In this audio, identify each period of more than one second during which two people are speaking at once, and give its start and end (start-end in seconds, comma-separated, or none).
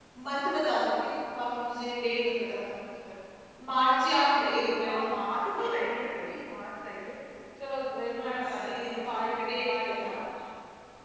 8.2-10.1